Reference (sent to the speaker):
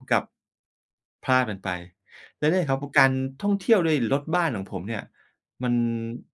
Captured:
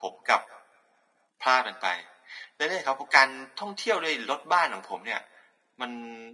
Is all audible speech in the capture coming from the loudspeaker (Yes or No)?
Yes